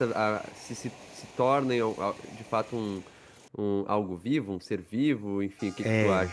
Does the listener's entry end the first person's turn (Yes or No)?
Yes